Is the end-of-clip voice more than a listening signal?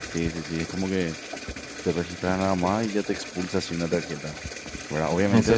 Yes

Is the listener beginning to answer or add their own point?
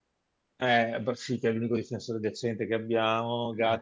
No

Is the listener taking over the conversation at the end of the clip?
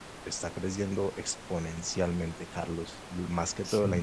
No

